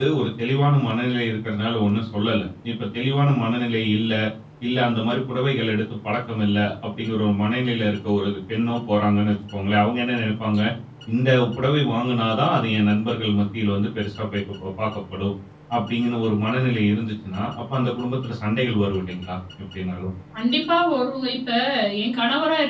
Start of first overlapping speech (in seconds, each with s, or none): none